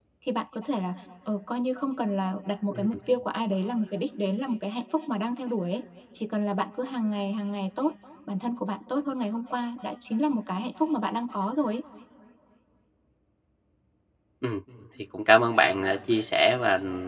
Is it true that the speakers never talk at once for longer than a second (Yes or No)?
Yes